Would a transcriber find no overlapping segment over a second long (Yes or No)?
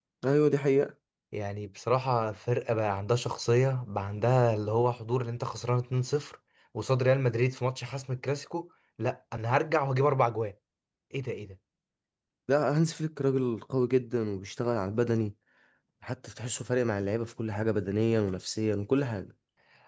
Yes